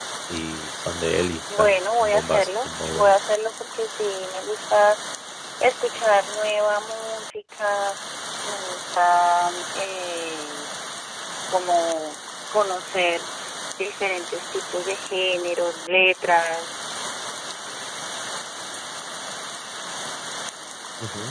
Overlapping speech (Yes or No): Yes